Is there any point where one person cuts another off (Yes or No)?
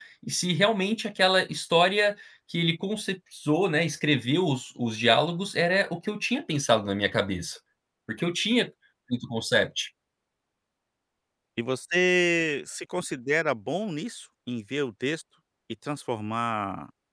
No